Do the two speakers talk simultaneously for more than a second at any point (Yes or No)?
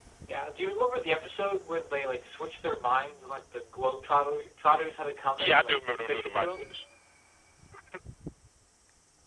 Yes